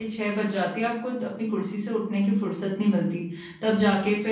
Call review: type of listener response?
listening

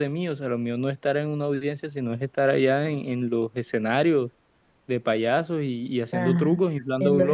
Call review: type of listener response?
taking over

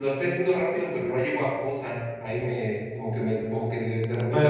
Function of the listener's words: taking over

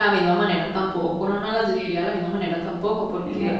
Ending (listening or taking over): listening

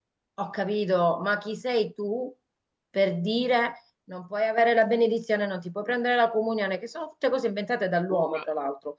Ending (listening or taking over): listening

